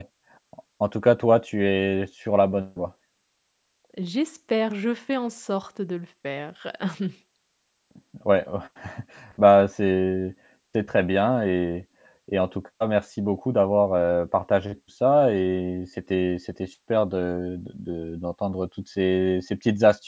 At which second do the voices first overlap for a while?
none

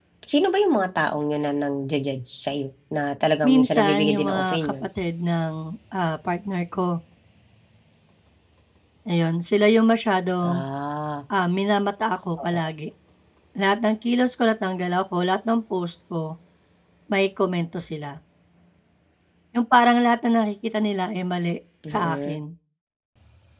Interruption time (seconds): 3.4 s

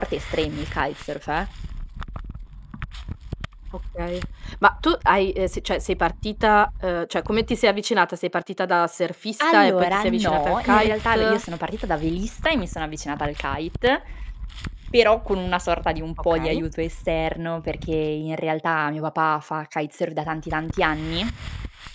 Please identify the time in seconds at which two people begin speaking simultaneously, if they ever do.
9.4 s

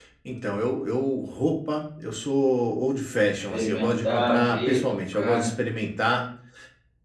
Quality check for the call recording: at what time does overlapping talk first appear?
3.5 s

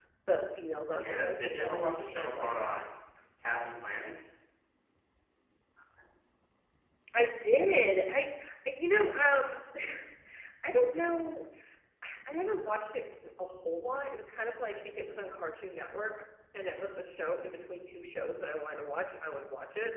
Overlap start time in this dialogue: 0.9 s

